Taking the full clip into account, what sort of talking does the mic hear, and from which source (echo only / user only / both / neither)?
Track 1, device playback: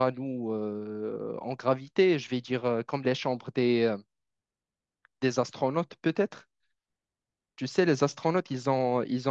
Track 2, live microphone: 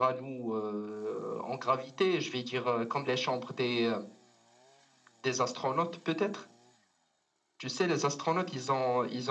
echo only